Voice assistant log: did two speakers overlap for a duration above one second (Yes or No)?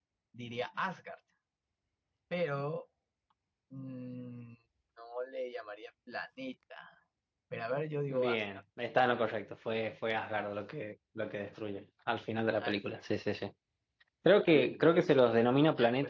No